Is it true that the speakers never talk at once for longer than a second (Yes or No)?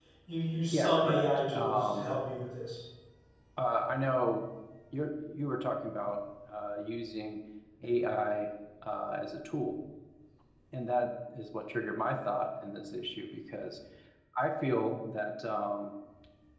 No